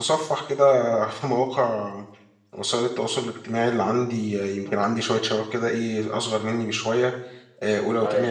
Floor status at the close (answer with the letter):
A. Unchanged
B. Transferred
A